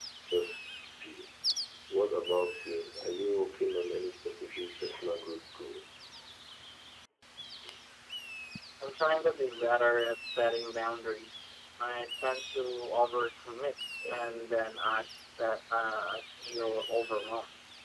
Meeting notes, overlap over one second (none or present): none